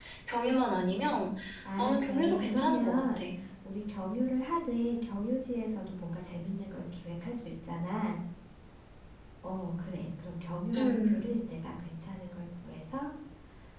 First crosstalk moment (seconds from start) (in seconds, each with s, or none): 1.8 s